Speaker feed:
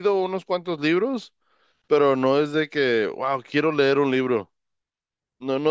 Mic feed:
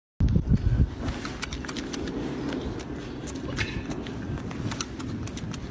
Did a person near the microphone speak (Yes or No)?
No